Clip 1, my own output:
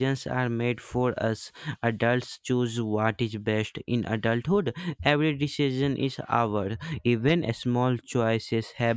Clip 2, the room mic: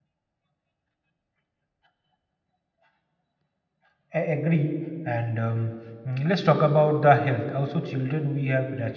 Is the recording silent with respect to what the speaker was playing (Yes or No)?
Yes